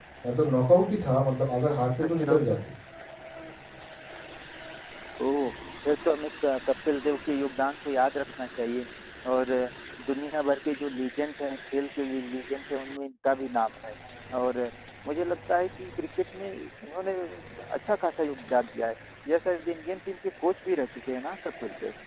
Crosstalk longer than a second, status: none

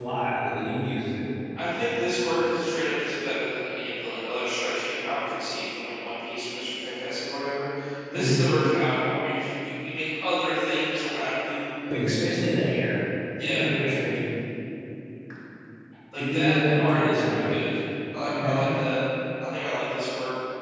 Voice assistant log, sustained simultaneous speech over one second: present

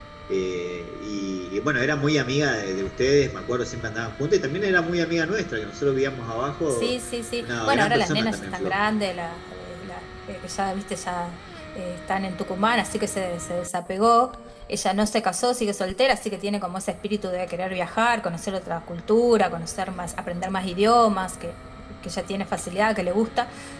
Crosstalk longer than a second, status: present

